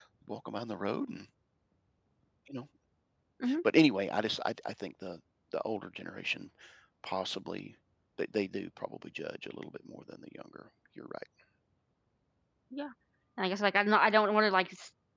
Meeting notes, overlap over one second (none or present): none